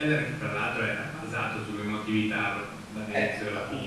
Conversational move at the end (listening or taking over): taking over